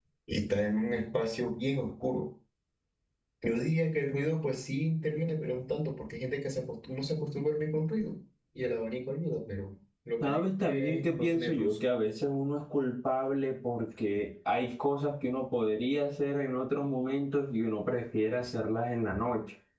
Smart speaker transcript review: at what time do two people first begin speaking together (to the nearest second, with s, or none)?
10 s